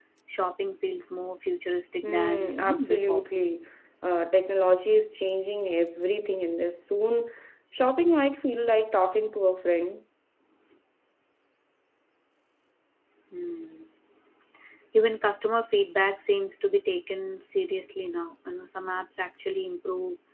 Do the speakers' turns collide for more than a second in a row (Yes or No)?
Yes